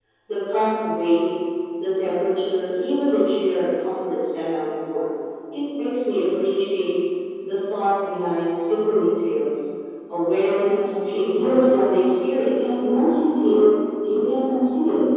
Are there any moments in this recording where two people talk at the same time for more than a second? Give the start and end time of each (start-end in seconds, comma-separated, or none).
10.6-12.2